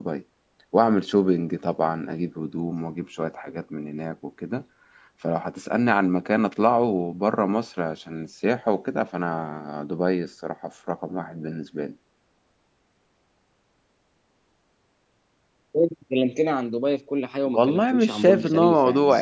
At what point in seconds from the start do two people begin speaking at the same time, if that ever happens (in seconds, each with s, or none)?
17.5 s